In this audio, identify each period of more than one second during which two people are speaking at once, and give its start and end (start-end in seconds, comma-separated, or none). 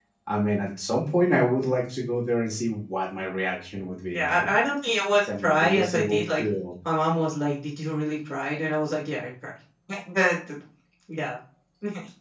5.2-6.4